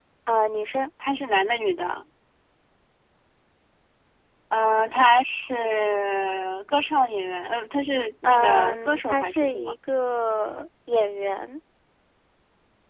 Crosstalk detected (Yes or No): Yes